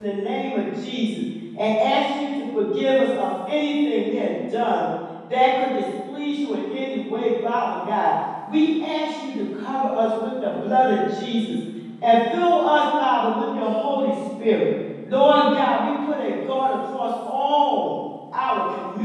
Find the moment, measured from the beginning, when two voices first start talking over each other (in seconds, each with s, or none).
none